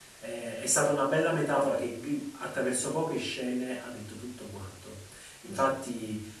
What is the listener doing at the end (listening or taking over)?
listening